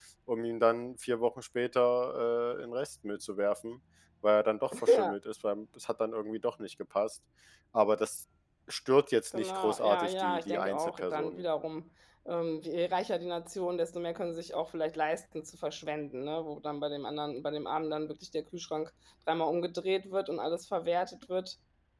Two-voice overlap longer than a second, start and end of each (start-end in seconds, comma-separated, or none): 9.3-11.4